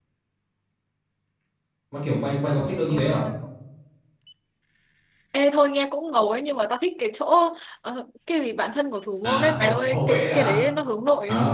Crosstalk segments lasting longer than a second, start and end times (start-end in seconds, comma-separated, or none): 9.2-10.6